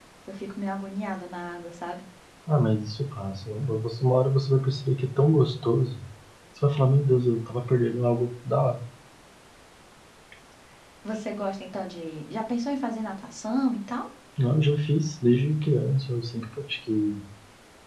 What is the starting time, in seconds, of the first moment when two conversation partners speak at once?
none

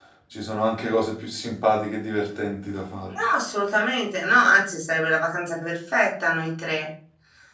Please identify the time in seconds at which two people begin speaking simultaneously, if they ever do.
none

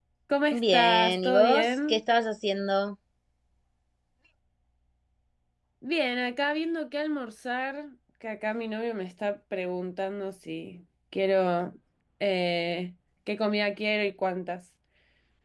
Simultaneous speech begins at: 0.5 s

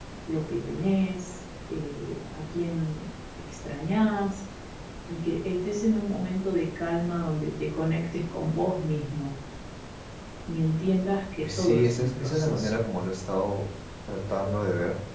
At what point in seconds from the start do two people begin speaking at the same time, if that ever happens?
11.4 s

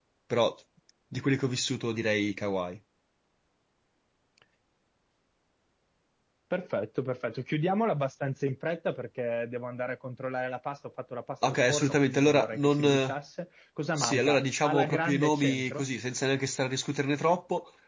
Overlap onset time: 11.5 s

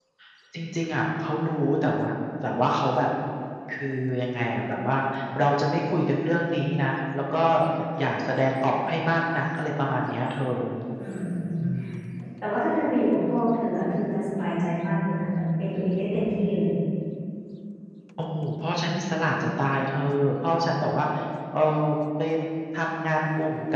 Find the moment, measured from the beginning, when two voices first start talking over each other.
none

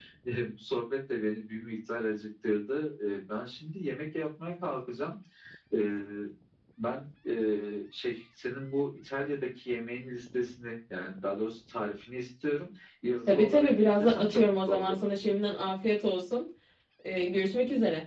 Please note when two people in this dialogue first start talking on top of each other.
13.3 s

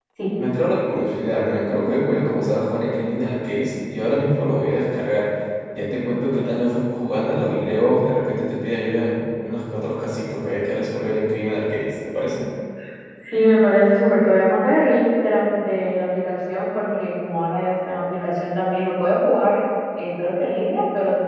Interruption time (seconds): none

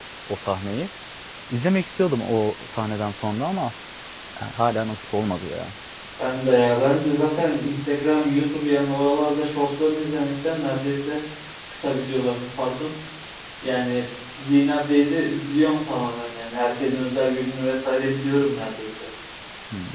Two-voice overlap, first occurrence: none

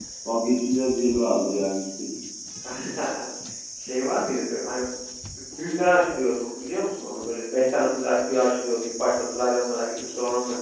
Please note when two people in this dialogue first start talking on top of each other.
none

